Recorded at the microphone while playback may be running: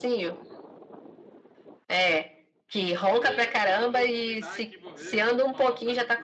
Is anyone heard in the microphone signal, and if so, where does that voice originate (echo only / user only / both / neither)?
both